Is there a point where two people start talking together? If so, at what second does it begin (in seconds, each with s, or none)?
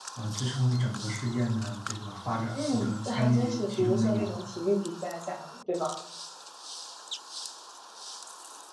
2.5 s